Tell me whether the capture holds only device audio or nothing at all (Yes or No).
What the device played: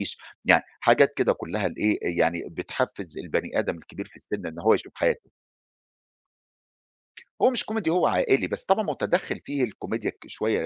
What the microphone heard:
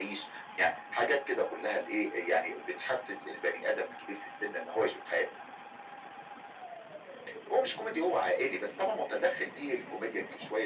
Yes